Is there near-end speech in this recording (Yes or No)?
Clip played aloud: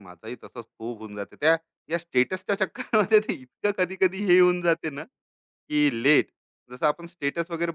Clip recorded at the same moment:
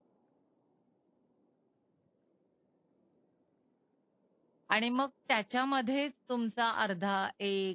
Yes